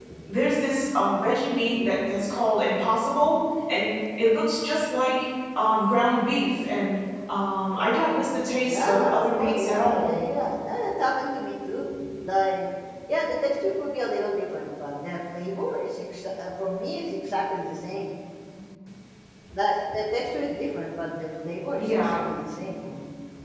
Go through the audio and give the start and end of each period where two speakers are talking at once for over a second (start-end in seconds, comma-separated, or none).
8.6-10.2